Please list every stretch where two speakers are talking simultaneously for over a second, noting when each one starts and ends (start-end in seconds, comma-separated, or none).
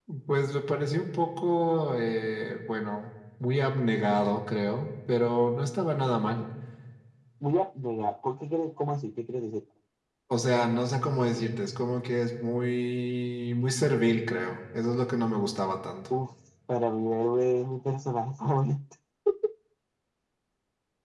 none